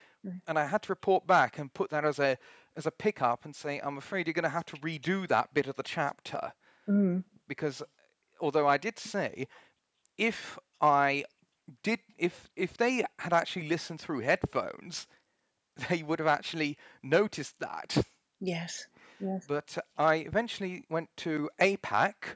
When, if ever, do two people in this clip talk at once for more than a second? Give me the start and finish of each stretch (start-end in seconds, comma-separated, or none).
none